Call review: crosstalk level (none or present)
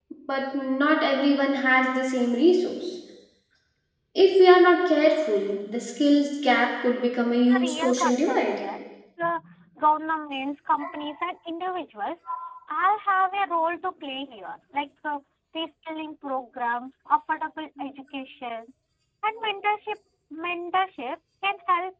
present